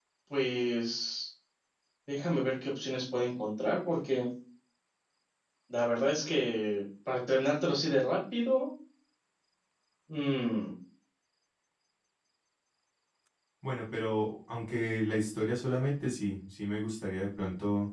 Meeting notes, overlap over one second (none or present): none